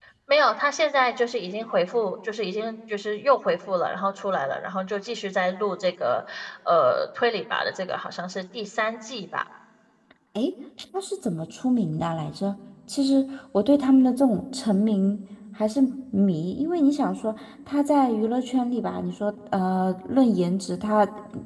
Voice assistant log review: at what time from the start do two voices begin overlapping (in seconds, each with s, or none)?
none